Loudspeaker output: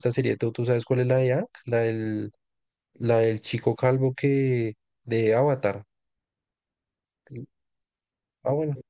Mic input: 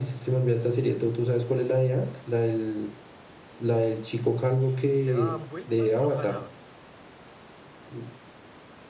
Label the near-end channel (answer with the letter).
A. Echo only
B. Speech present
B